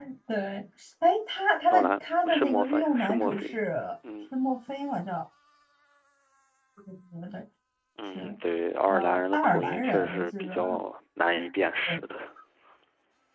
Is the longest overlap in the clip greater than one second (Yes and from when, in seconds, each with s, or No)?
Yes, from 1.7 s